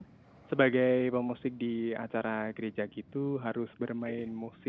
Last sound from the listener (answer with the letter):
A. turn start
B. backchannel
B